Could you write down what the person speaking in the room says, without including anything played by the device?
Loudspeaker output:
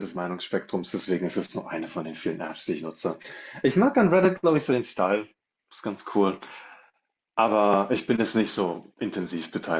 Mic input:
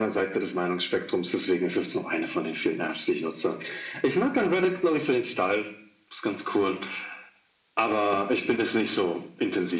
none

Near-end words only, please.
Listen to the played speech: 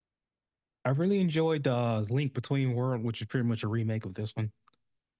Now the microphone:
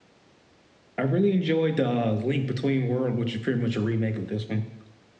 none

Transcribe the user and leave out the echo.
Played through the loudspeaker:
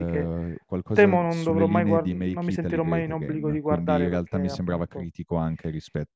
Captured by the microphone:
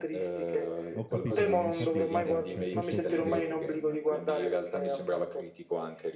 Ho capito, ma infatti, guarda, cioè, questo ti dirò,

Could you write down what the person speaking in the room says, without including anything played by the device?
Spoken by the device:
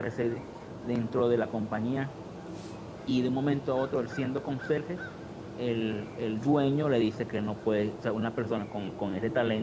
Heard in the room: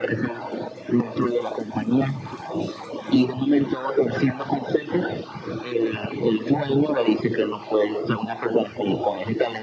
none

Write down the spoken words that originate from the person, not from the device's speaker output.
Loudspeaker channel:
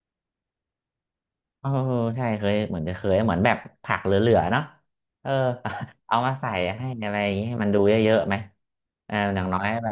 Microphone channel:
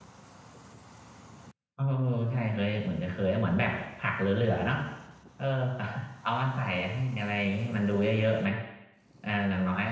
none

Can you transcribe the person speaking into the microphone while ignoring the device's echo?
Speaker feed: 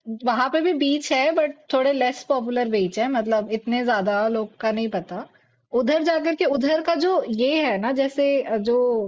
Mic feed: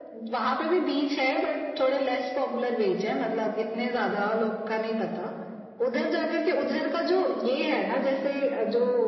none

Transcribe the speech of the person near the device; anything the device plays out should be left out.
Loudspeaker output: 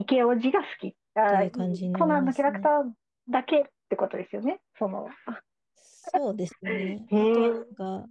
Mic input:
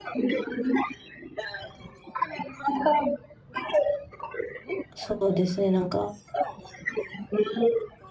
そうですね、なんか、

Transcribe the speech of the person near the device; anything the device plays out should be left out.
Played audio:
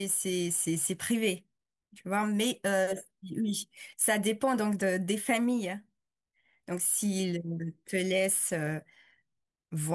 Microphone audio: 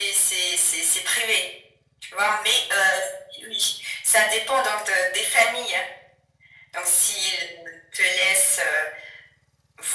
none

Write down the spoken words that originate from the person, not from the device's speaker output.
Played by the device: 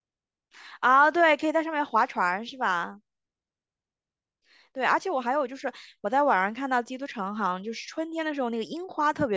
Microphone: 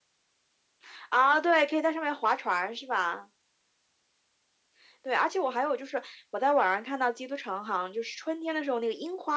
none

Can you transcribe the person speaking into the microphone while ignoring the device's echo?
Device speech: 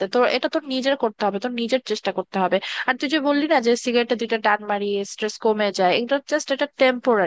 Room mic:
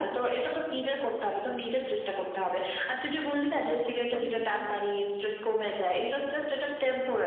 মনে হয় কত শান্তি জীবনে

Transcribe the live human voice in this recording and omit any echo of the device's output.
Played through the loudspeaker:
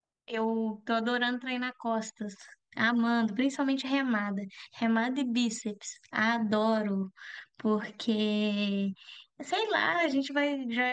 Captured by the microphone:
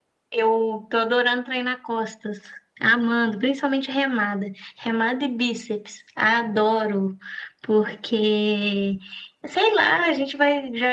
none

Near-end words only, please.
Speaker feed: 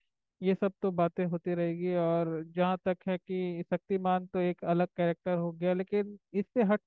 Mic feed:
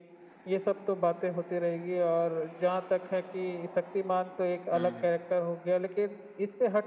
हम्म

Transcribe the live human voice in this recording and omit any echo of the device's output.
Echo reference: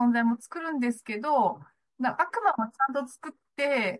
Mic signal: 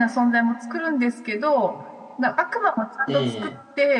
ええ、

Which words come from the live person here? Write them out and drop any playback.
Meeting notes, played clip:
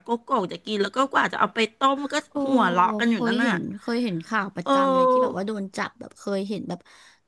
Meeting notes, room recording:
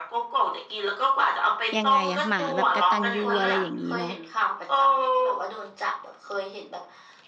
ยังไงอะหมาแบบกตัญญูอะไรอย่างนี้เนาะ

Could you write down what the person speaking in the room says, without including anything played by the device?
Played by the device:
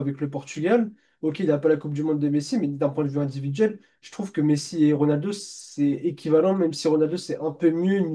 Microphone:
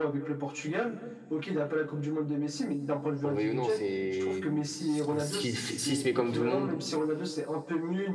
on le veuille ou non, c'est. S'il si- si- S'il se met comme tout le monde,

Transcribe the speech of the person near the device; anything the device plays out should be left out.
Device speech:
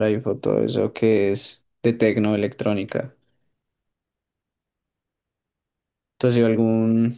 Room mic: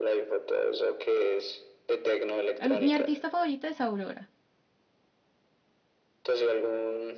eh, mi artista favorita es Aurora.

